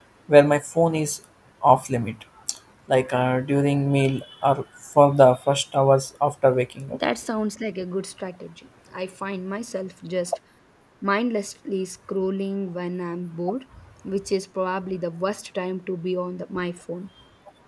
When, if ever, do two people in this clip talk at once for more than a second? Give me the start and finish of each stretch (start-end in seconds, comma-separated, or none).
none